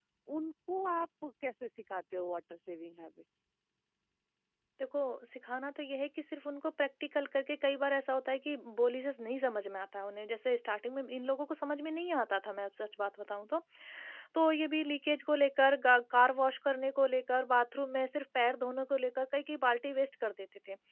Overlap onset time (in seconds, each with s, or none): none